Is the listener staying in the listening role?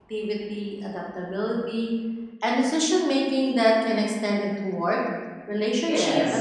No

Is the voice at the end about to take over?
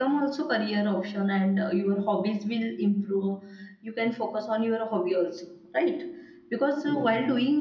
No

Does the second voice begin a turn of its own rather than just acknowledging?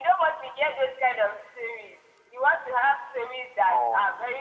No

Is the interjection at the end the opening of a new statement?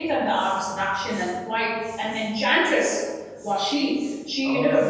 No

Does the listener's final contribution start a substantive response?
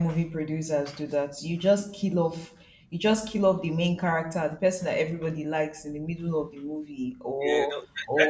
Yes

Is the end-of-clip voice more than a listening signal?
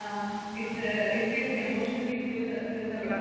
Yes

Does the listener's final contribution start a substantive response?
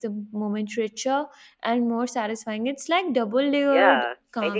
Yes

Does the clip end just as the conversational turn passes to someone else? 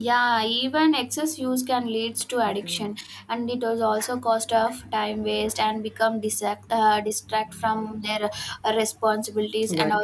No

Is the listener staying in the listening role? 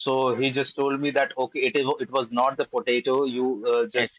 Yes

